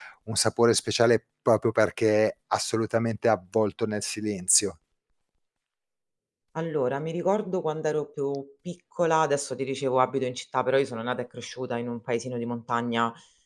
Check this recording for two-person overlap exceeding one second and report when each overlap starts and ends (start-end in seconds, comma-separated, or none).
none